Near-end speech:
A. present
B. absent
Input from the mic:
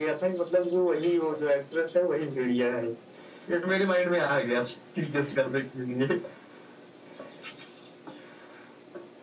B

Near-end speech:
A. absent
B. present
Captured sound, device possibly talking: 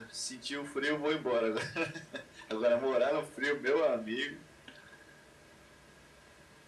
A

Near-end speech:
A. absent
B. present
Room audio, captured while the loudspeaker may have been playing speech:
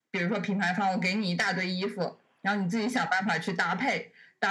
A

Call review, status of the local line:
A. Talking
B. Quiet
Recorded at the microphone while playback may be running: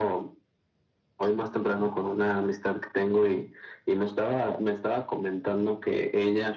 B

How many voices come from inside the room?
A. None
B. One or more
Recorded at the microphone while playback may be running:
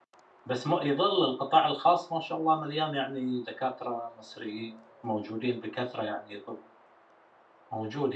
B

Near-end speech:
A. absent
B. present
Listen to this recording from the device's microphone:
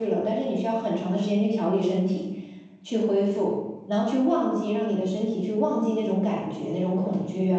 B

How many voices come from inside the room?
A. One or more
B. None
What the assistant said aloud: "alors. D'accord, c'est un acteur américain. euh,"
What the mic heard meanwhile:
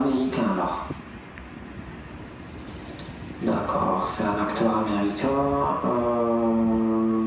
B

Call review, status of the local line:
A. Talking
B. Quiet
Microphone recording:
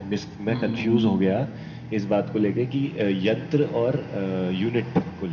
A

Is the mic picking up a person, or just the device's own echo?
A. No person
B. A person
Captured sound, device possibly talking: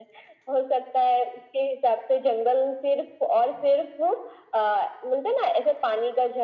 A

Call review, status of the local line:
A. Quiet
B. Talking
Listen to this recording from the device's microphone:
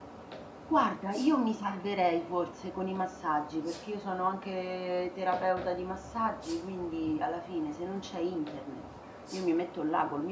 B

